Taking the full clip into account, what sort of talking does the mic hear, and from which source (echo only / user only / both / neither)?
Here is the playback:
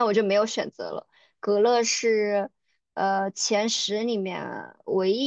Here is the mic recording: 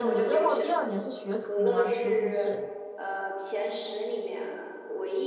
both